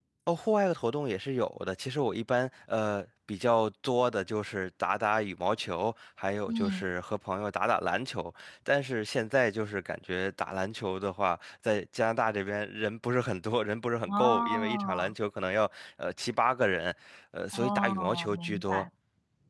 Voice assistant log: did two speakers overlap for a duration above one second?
Yes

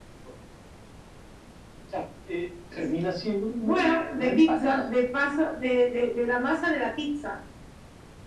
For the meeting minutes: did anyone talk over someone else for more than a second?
Yes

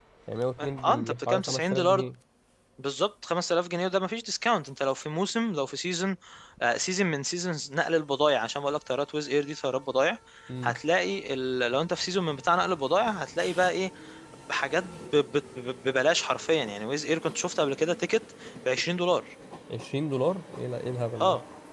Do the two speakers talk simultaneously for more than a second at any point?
Yes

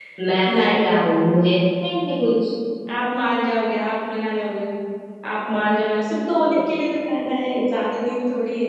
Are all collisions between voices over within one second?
Yes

